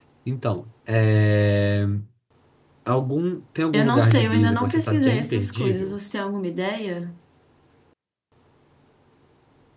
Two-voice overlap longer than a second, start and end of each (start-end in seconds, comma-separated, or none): 3.7-6.0